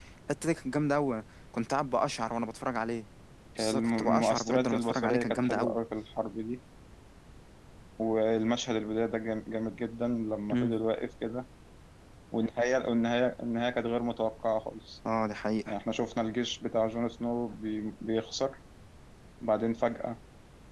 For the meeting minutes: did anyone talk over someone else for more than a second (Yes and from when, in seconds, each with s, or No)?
Yes, from 3.6 s